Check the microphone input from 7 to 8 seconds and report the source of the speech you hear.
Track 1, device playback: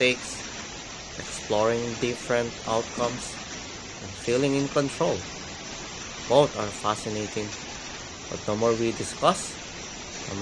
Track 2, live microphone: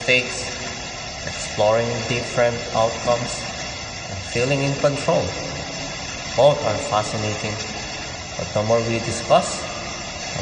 echo only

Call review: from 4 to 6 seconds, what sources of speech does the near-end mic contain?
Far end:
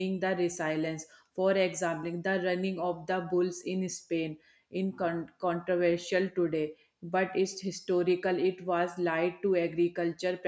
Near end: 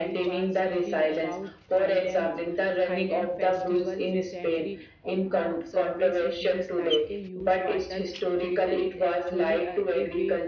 both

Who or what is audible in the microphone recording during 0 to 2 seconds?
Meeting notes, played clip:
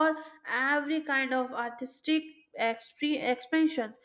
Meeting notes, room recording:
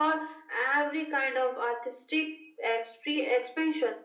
echo only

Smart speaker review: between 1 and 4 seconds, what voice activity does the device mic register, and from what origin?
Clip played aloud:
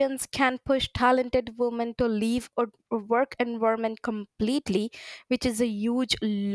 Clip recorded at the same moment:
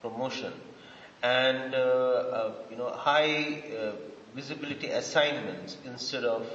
user only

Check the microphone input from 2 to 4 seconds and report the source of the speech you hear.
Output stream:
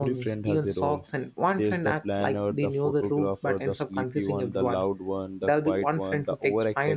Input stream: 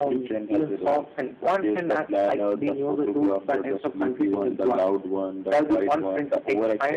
echo only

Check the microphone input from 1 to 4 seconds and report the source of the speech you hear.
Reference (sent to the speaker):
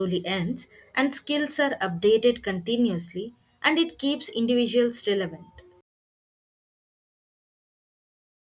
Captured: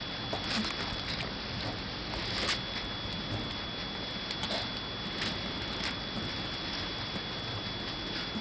neither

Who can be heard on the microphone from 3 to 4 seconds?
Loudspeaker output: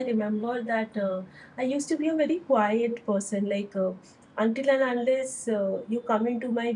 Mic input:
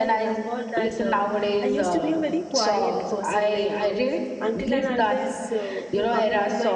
both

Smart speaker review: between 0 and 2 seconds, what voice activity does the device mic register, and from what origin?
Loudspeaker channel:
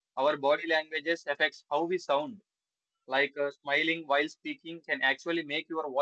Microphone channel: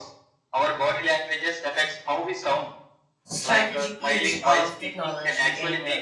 echo only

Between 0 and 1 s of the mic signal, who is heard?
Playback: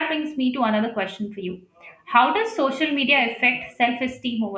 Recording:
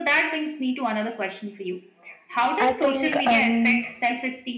echo only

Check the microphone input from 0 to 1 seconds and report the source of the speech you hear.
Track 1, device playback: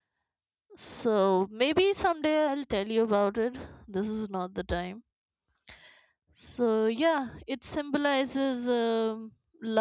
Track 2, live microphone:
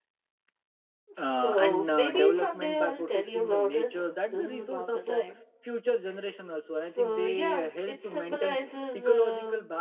neither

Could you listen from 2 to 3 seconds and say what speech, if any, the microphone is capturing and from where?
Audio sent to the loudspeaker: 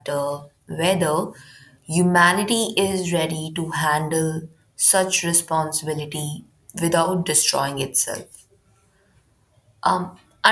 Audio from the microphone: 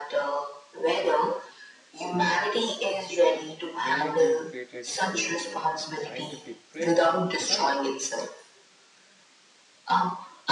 echo only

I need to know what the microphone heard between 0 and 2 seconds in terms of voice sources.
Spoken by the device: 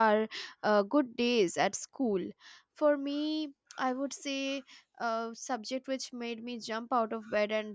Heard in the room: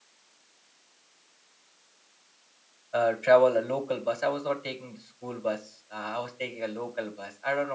neither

